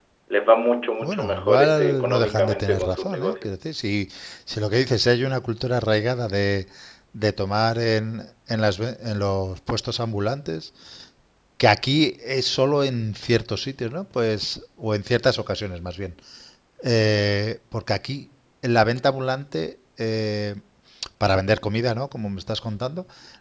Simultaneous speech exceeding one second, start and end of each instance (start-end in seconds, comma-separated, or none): 1.0-3.5